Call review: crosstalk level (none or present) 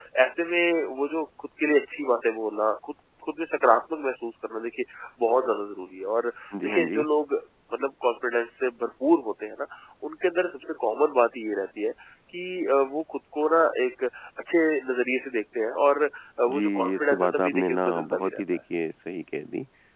present